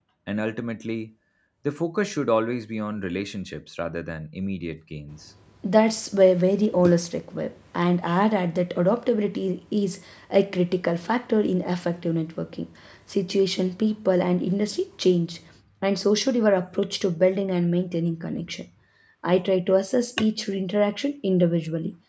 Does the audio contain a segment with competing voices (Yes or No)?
No